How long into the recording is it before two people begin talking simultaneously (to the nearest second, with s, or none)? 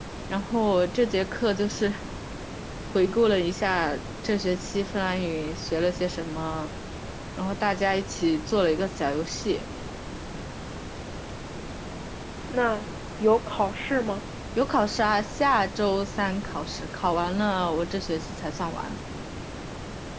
none